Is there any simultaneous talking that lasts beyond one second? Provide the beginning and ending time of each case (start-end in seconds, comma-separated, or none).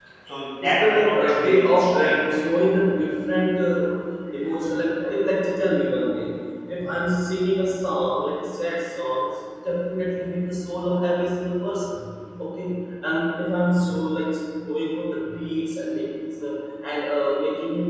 0.6-2.1